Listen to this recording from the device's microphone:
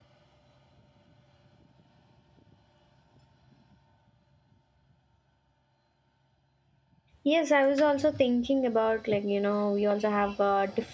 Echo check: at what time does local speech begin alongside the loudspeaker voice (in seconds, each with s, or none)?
7.2 s